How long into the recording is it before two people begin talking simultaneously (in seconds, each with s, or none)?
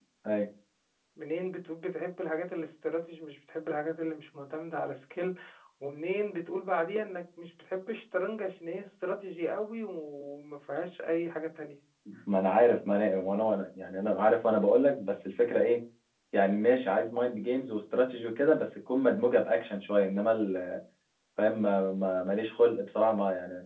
none